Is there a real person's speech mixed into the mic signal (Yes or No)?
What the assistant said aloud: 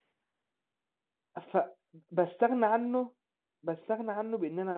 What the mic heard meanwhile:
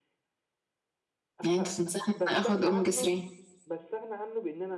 Yes